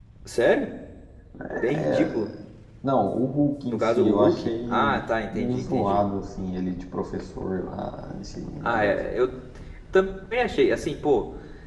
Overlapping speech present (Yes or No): Yes